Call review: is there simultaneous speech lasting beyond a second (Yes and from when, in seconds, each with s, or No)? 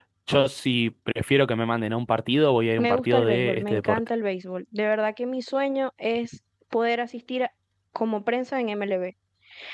Yes, from 2.8 s